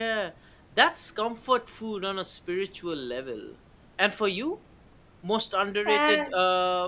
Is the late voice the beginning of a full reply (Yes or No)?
No